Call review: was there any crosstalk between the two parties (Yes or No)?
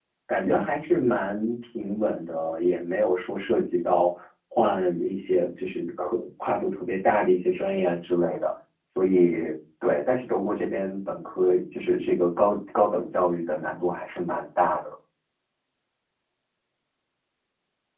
No